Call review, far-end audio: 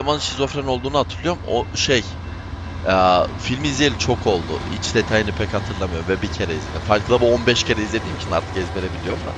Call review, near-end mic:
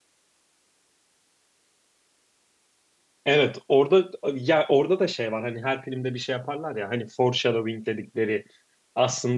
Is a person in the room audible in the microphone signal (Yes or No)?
Yes